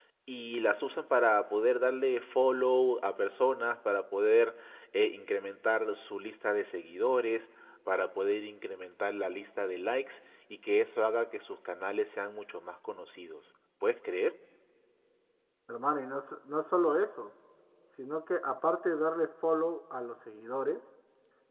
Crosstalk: none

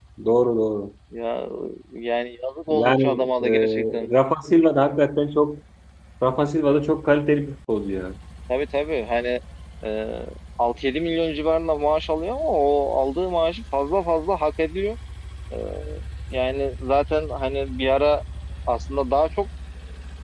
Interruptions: present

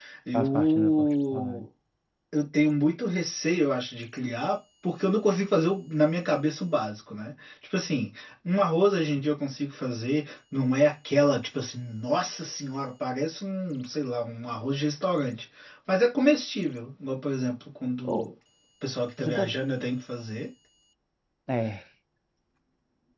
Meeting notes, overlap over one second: present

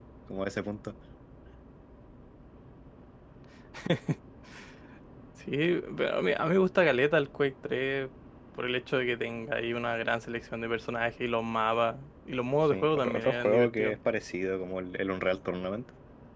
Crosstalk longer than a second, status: present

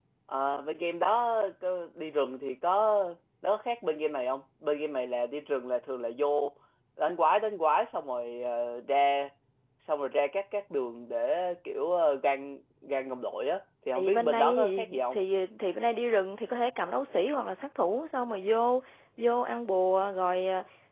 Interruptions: present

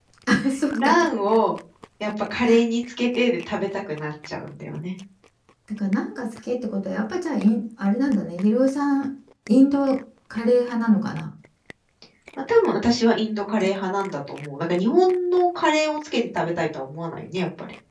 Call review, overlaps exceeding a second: none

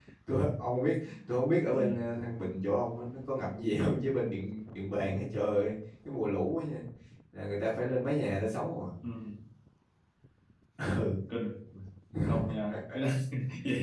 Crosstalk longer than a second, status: none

